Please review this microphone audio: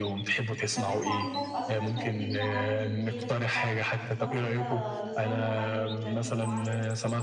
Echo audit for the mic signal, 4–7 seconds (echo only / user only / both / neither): both